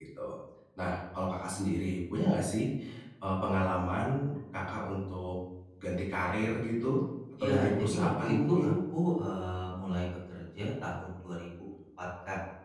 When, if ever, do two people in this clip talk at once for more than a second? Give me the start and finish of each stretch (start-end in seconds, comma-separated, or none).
7.4-8.7